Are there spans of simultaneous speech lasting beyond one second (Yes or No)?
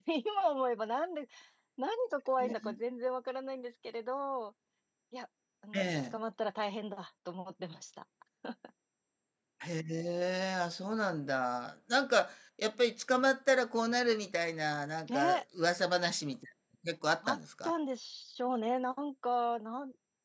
No